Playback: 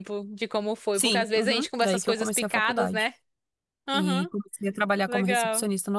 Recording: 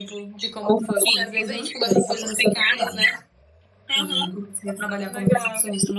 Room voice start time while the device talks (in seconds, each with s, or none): none